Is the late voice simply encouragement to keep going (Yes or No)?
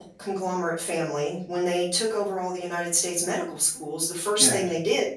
Yes